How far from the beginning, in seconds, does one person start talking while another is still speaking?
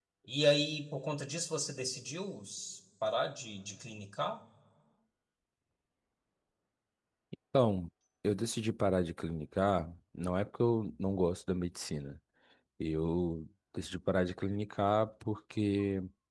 none

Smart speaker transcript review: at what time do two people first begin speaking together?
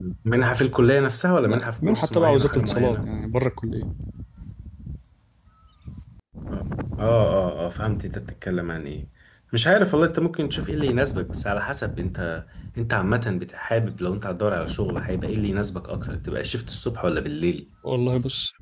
1 s

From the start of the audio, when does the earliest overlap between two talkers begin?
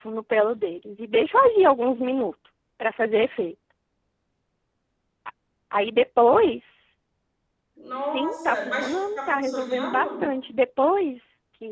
8 s

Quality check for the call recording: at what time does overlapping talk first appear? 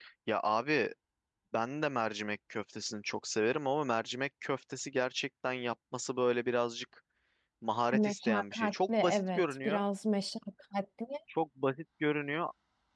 8 s

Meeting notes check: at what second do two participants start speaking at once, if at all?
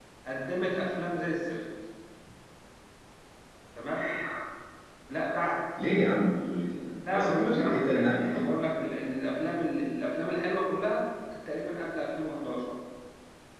7 s

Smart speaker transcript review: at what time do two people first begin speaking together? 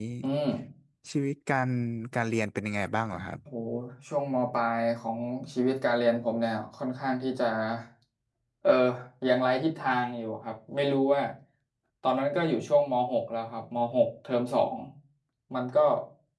none

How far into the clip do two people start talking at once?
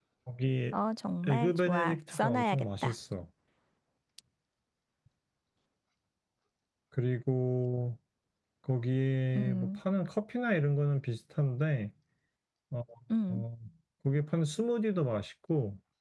1 s

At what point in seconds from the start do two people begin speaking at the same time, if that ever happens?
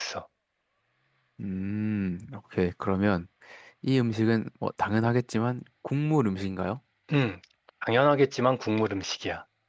none

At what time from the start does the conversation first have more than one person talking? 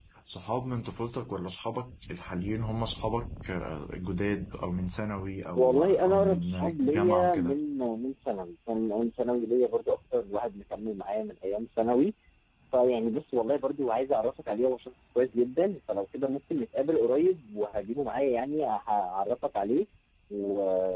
6 s

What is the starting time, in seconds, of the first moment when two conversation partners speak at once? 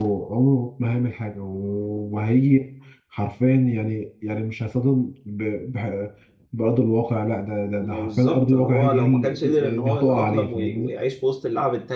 8 s

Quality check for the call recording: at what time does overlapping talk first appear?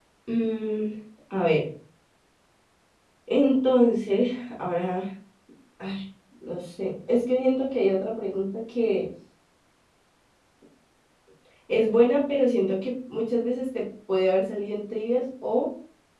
none

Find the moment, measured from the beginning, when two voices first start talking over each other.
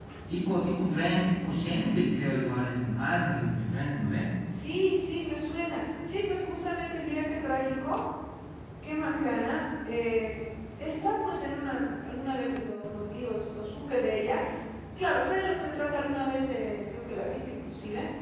none

